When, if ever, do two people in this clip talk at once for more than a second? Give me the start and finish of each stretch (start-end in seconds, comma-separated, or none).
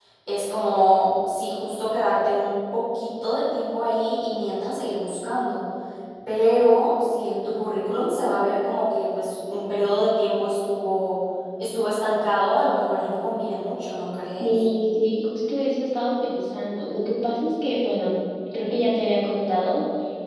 none